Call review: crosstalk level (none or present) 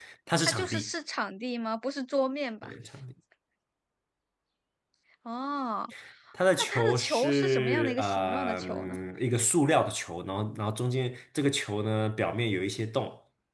present